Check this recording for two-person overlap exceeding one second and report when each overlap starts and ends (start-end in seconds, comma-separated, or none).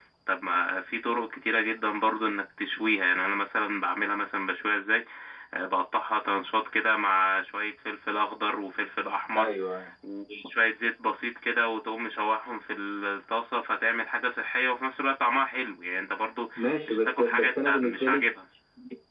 16.8-18.2